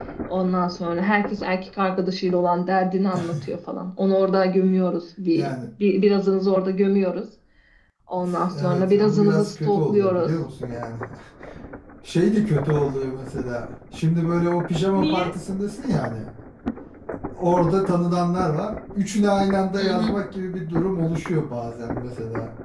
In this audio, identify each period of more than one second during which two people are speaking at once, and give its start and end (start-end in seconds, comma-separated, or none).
8.6-10.3